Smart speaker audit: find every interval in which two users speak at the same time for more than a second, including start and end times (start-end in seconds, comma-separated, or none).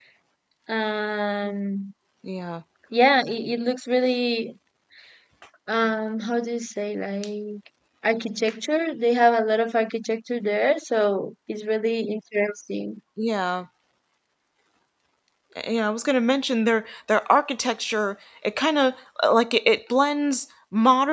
none